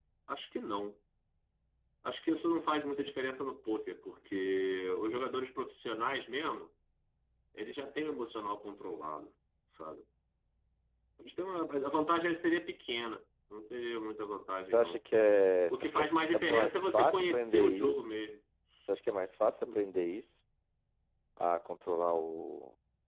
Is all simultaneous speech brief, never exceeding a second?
No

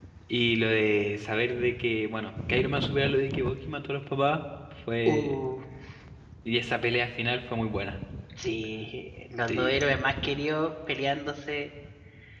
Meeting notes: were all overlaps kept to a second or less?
Yes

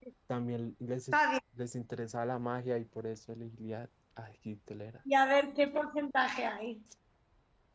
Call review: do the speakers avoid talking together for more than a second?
Yes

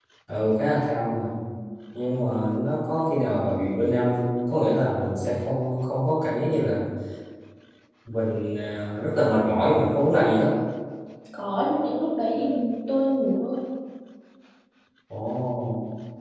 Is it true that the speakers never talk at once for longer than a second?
Yes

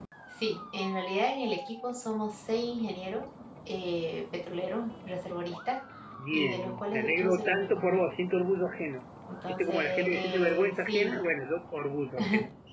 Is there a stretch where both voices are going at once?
Yes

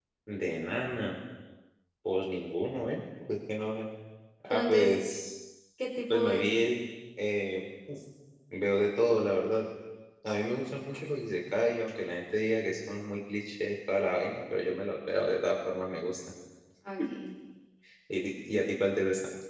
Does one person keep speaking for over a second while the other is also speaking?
No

